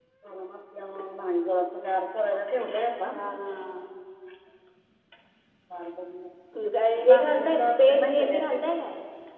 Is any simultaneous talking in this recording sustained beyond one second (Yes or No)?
Yes